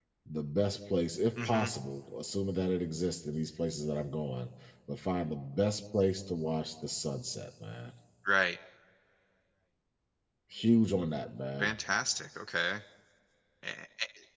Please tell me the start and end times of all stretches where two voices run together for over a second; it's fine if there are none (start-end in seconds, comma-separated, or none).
none